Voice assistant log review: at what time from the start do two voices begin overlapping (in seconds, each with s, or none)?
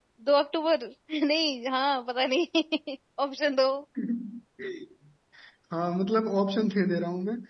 none